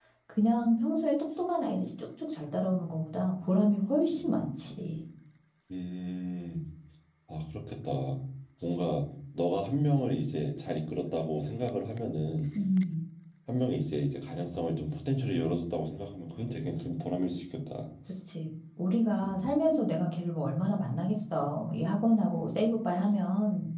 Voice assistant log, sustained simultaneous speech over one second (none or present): none